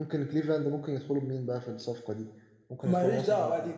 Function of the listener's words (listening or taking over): taking over